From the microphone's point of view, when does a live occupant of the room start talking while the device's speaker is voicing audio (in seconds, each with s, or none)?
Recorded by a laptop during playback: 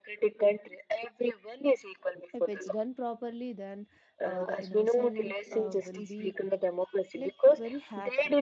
2.3 s